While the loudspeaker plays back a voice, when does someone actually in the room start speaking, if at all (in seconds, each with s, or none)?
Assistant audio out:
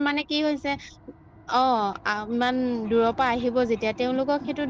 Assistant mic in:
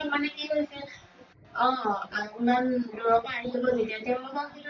none